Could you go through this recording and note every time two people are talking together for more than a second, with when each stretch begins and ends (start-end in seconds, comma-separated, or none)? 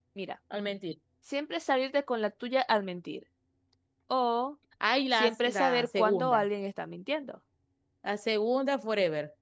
5.1-6.4